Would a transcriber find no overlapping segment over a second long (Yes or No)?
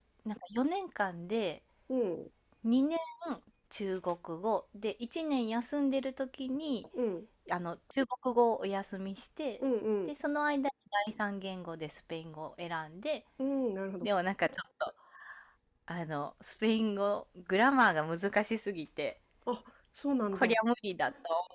Yes